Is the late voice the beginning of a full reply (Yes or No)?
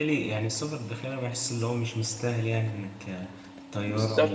Yes